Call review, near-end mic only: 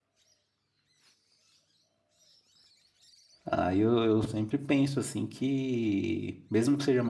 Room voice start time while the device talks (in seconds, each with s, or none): 3.5 s